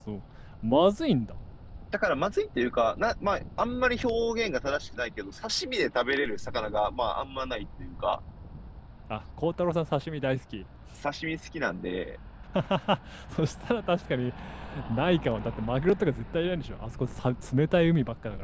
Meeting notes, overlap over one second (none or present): none